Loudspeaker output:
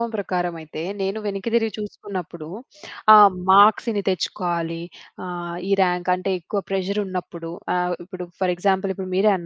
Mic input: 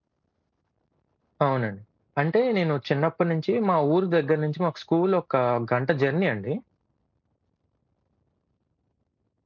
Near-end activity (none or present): present